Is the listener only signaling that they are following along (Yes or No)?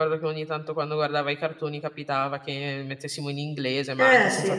Yes